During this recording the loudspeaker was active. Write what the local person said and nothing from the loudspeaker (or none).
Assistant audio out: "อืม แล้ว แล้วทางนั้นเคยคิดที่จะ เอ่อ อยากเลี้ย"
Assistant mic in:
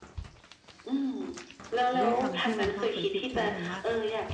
ด้วยคำที่คุณพ่อเคยพูดครั้งหนึ่งว่า